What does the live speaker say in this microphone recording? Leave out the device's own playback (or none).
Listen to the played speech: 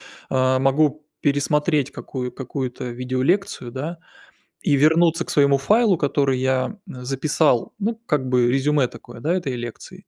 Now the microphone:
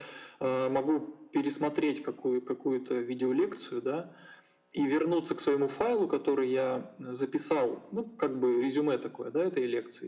none